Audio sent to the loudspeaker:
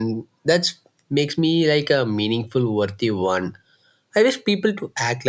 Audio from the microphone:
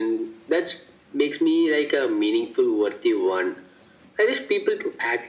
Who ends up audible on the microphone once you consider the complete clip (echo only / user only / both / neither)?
echo only